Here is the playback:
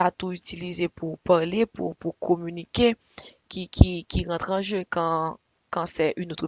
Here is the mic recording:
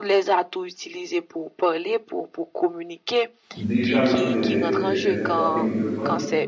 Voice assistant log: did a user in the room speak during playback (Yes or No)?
Yes